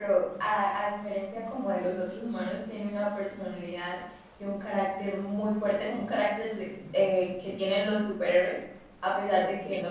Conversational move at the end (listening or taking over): listening